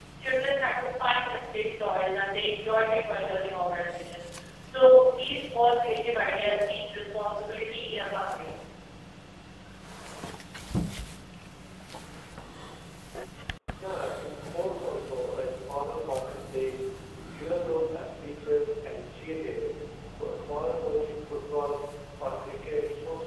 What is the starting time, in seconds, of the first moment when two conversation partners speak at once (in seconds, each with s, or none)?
none